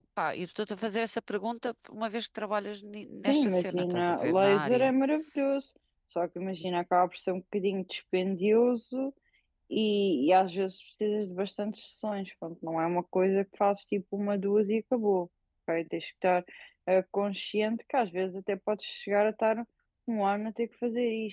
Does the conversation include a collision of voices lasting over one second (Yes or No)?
Yes